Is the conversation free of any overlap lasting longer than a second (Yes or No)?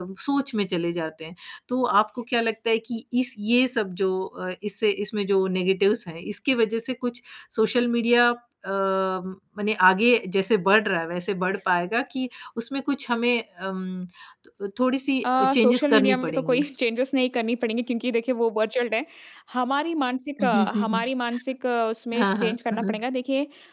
No